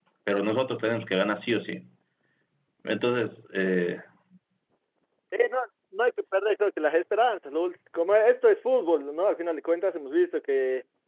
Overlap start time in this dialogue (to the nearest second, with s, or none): none